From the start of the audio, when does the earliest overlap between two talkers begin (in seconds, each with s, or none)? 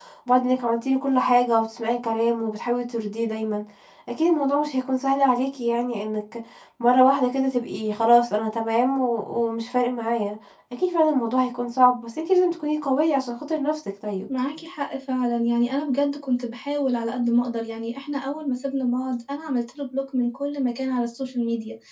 none